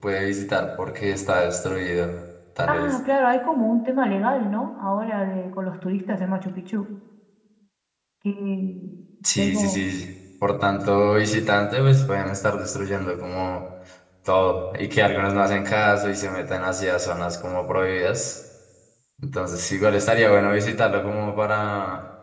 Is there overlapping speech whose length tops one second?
No

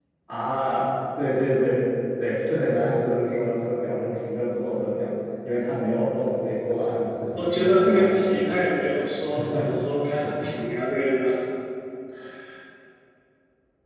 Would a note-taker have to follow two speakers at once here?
Yes, from 7.4 s

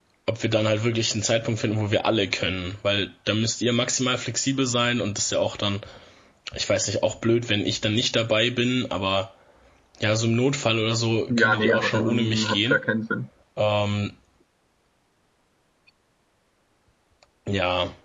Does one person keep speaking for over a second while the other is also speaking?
Yes, from 11.3 s

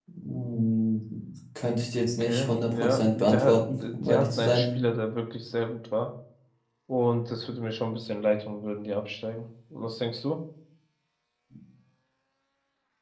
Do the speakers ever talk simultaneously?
Yes, from 2.2 s

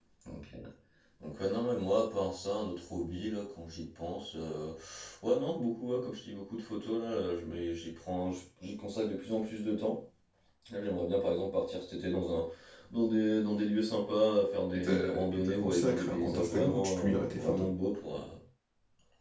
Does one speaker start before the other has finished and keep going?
Yes, from 14.7 s

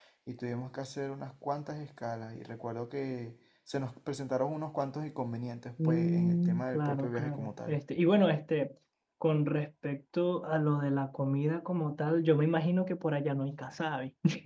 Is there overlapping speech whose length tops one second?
Yes, from 5.8 s

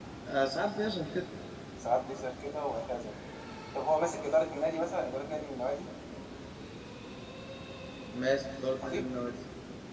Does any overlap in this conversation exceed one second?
No

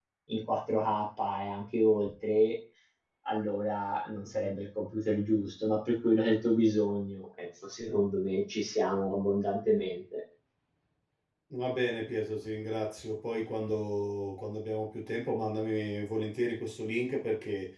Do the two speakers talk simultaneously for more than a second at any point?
No

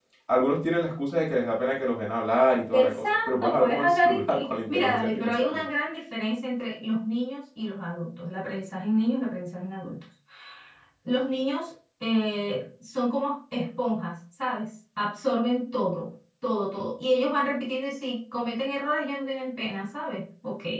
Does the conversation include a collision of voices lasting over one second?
Yes, from 2.7 s

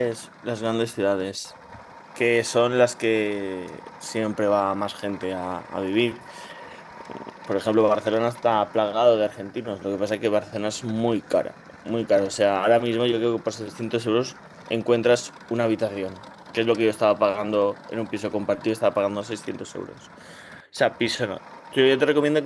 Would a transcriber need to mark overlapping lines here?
No

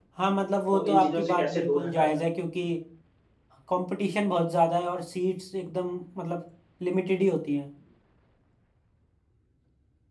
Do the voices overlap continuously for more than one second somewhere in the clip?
Yes, from 0.7 s

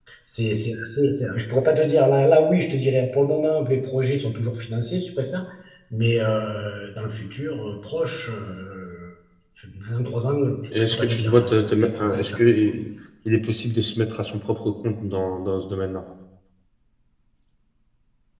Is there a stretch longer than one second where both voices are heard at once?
Yes, from 10.7 s

